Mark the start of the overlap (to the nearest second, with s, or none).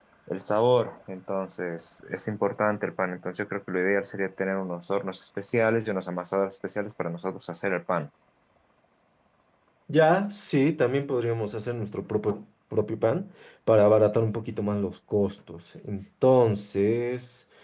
none